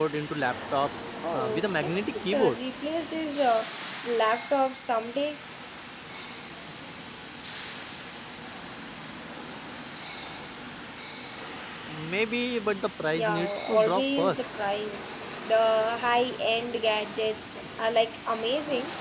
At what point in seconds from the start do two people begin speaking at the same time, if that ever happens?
1.3 s

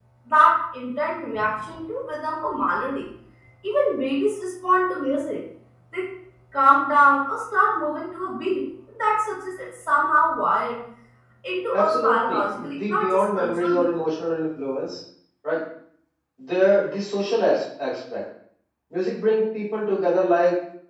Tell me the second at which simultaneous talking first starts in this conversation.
11.7 s

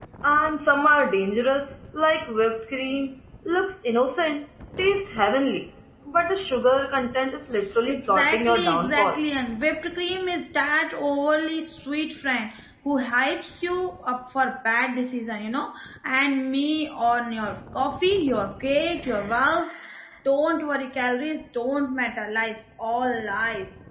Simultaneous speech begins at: 7.9 s

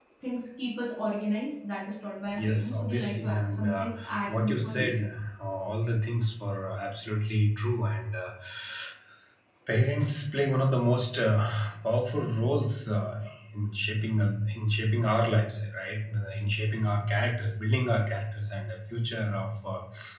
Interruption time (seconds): 2.3 s

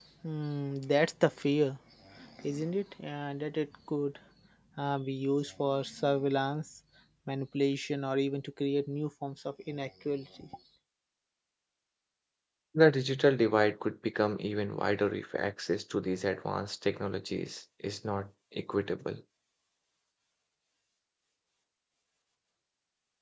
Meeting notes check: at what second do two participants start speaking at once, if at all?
none

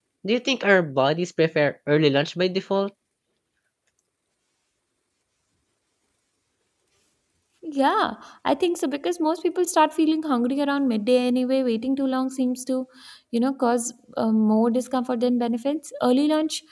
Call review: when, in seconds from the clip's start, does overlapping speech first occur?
none

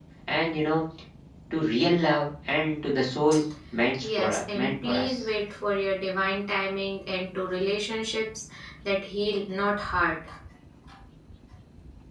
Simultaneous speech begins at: 4.0 s

